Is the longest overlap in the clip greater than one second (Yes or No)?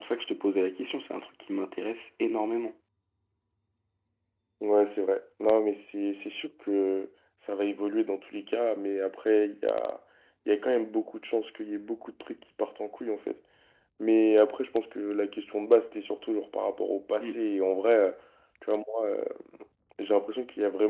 No